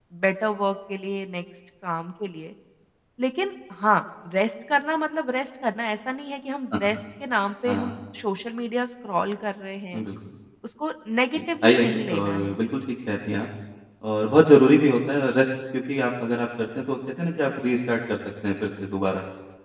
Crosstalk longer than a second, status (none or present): present